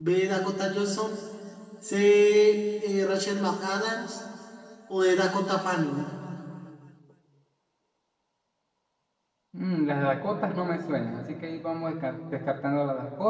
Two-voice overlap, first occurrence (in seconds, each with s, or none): none